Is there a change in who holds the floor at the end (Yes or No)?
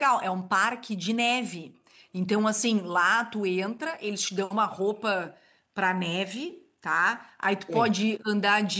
No